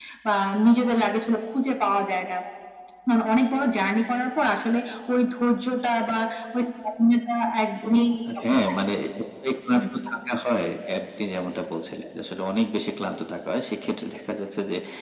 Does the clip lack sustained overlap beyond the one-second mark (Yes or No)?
Yes